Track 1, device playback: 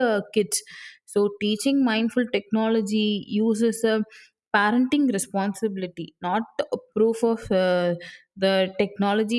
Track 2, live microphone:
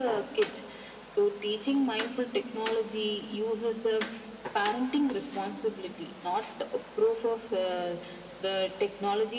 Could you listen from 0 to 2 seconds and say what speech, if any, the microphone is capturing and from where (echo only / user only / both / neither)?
echo only